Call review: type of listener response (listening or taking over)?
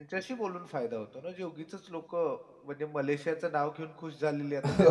taking over